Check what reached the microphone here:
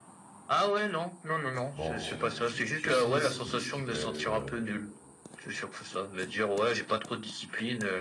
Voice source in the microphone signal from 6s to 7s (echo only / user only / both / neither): echo only